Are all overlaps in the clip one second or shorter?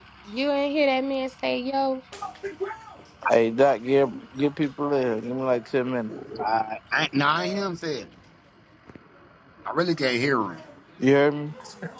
Yes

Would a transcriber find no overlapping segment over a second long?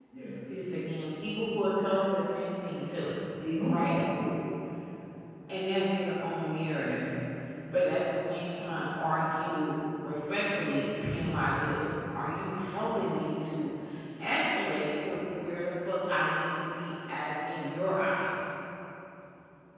Yes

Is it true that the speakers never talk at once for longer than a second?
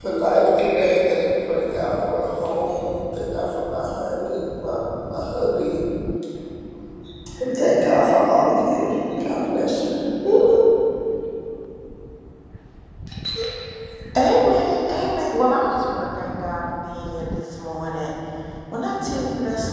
Yes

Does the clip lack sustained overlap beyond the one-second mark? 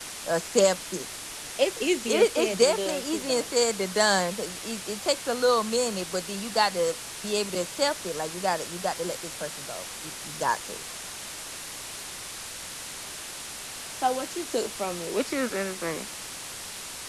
No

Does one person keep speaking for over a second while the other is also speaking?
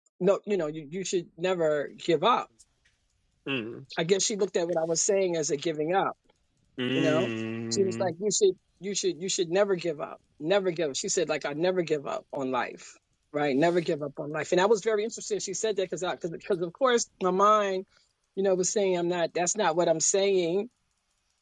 No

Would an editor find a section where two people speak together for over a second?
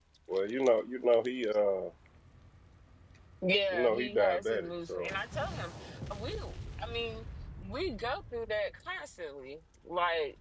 Yes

